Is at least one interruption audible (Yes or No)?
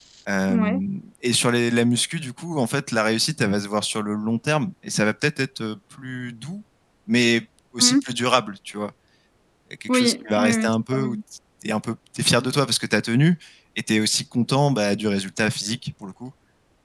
Yes